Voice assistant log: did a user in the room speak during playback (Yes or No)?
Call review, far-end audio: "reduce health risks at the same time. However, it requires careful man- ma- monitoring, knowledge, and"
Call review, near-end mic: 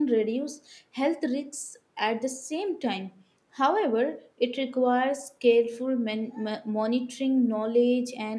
No